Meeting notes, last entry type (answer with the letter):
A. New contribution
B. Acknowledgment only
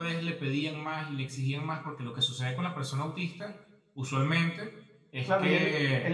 A